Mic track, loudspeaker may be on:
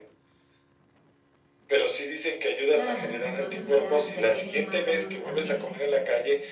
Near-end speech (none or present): present